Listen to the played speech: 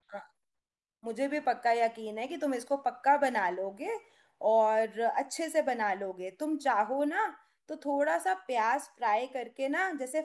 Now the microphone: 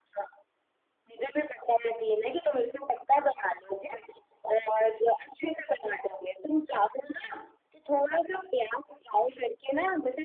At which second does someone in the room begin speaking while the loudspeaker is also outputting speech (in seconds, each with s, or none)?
none